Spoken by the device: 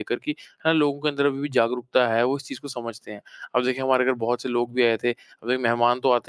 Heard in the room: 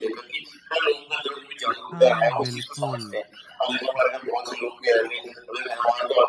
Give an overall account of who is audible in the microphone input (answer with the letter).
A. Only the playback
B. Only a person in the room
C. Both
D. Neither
C